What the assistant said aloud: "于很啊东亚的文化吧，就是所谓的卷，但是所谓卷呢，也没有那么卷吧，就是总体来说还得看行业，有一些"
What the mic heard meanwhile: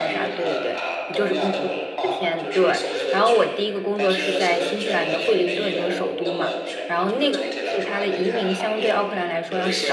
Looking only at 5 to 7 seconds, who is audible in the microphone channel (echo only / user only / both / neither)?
both